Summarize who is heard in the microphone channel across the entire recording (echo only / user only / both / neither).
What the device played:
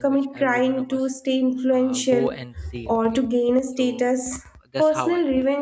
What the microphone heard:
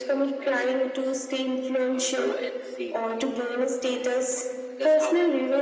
echo only